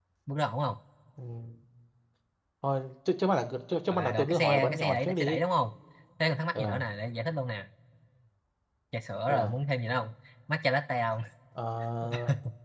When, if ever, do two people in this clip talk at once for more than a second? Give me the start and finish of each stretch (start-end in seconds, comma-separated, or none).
3.9-5.4